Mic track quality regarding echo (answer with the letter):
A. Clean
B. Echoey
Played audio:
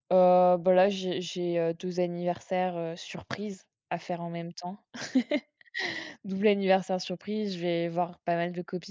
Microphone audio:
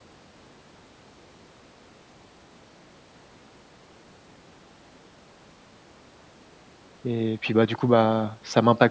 A